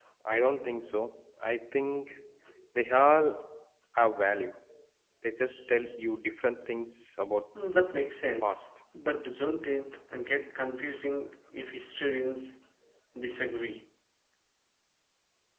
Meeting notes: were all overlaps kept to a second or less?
Yes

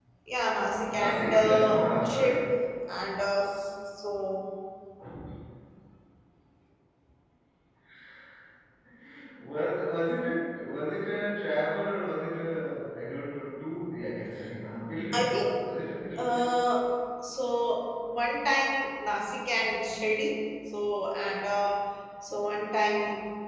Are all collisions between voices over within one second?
No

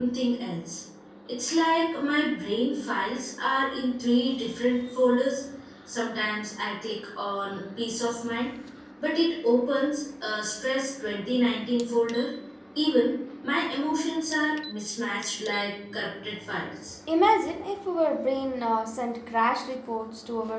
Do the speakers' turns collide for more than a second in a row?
No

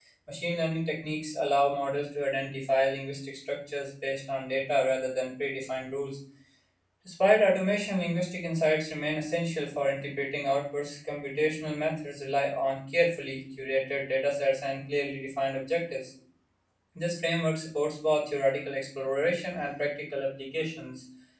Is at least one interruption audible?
No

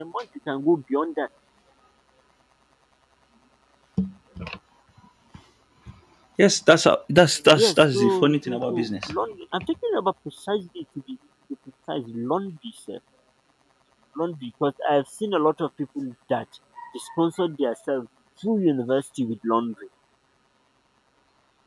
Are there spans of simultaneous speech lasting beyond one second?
Yes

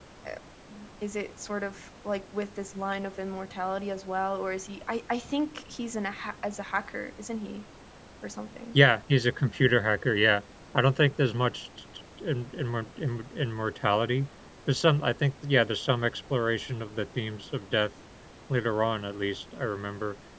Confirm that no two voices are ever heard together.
Yes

